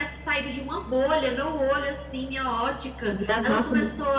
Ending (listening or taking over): listening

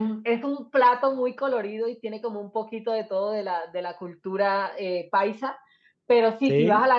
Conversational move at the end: listening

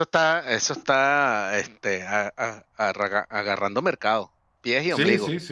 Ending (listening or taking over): taking over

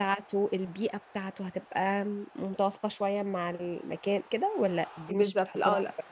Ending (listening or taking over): taking over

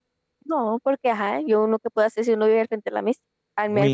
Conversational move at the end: taking over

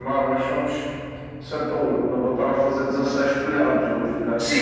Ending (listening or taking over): taking over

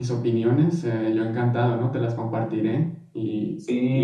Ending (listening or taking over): taking over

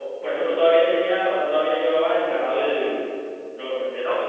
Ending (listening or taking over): listening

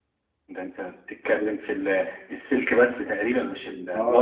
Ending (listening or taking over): taking over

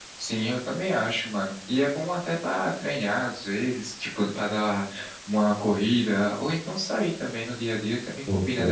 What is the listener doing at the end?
taking over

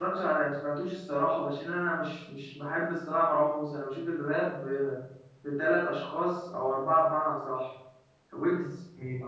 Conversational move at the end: listening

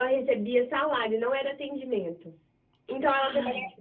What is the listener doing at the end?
listening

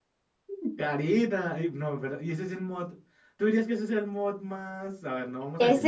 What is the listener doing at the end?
taking over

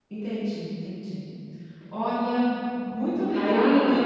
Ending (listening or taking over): listening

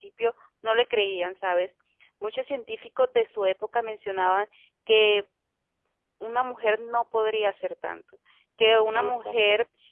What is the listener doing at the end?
listening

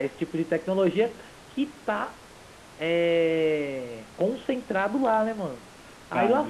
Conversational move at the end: listening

